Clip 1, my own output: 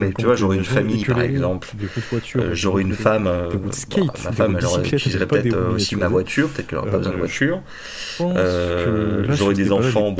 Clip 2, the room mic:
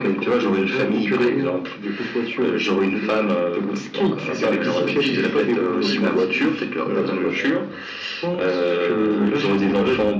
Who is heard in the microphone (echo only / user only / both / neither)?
both